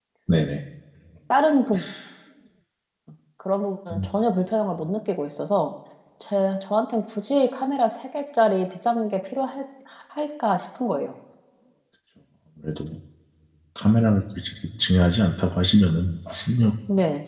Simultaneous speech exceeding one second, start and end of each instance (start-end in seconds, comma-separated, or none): none